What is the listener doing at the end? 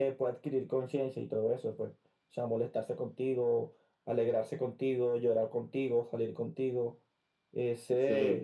taking over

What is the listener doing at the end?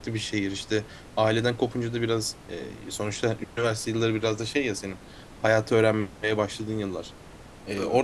listening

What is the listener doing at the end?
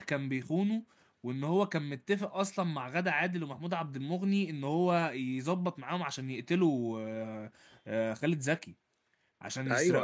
listening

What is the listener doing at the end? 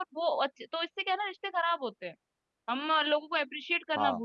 listening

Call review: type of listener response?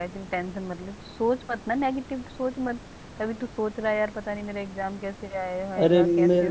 taking over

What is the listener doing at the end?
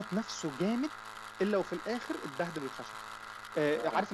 listening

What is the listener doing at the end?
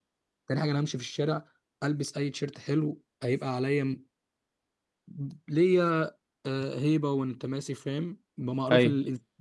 listening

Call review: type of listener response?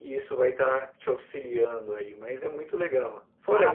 listening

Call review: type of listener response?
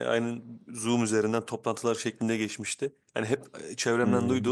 listening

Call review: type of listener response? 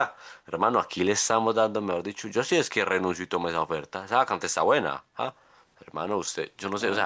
listening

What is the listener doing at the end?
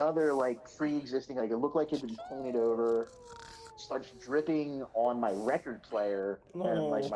listening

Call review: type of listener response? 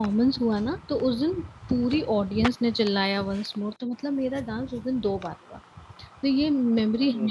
listening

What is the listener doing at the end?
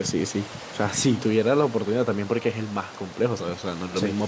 listening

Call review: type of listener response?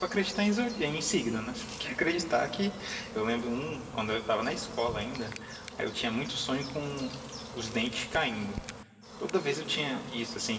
taking over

